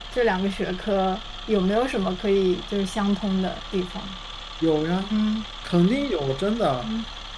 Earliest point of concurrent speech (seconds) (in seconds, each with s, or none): none